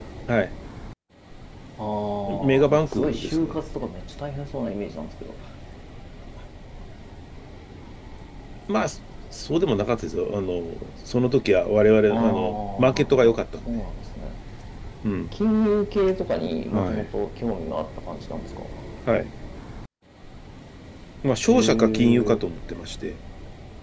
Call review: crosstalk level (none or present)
present